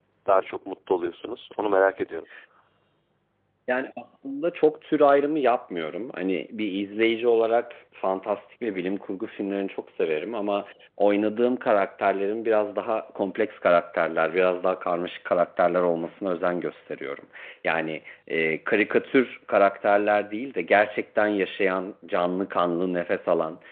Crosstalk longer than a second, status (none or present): none